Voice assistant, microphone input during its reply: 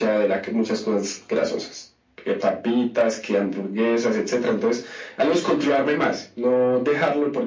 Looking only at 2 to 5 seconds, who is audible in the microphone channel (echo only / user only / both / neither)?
echo only